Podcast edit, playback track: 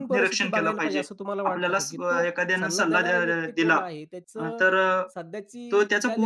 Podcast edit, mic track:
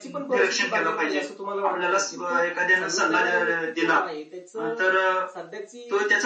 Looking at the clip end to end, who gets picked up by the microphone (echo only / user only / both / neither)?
echo only